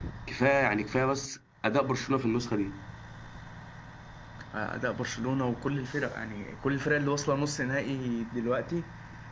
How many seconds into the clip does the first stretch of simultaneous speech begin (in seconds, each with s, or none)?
none